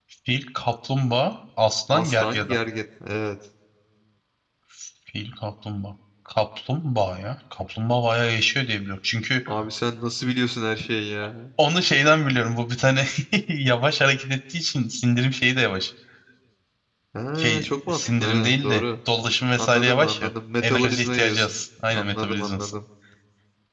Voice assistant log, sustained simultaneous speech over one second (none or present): present